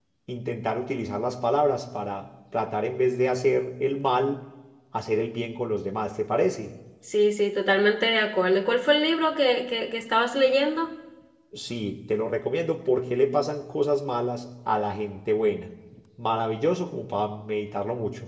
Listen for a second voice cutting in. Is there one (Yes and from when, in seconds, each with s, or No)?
No